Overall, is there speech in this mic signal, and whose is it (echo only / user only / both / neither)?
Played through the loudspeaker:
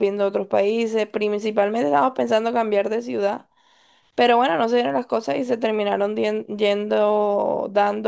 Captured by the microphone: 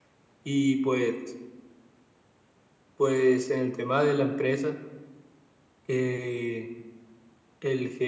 user only